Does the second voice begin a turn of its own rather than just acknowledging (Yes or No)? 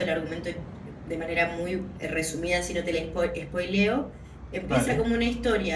No